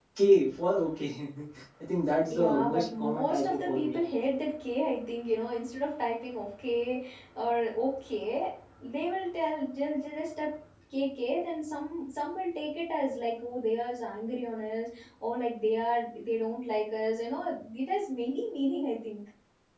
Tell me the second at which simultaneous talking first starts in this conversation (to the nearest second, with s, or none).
2 s